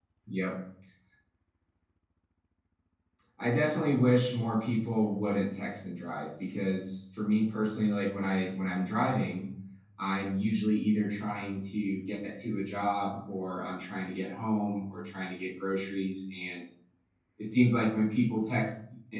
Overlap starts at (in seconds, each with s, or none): none